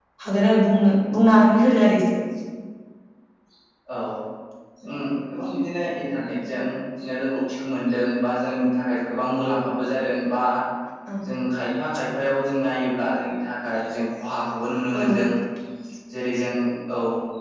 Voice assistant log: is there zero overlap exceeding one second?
Yes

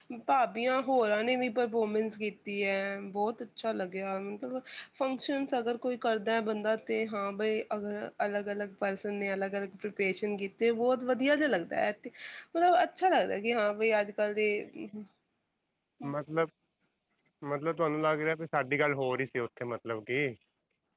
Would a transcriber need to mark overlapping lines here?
No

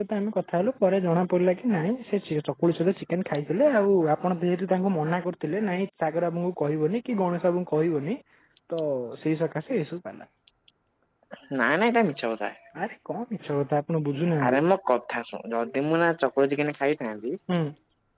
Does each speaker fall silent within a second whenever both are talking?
Yes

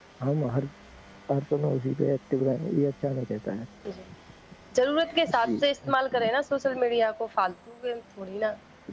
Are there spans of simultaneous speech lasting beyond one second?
No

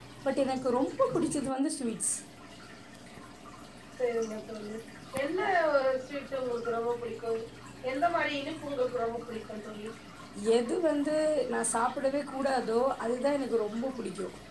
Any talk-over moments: No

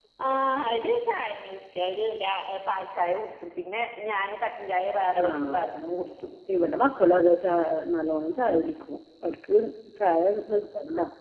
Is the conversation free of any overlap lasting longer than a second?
Yes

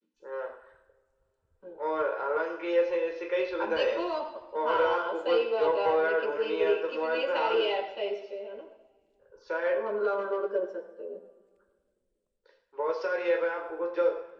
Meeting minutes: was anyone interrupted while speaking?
Yes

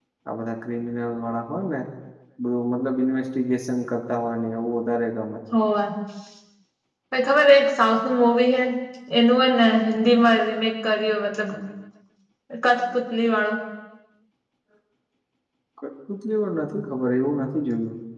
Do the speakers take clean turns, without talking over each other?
Yes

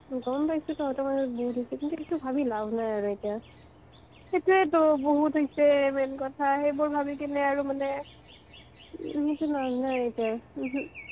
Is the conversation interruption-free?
Yes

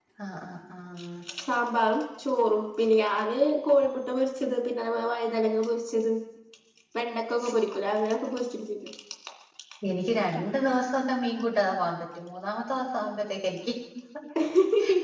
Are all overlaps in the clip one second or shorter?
Yes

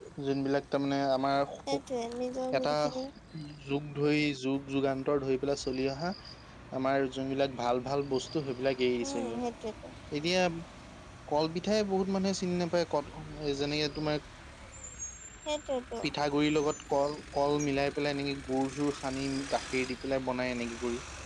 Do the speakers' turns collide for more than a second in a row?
No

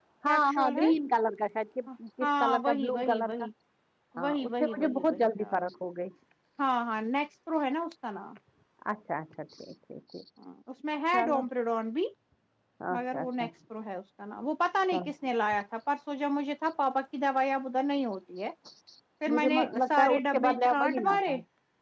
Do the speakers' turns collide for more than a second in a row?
Yes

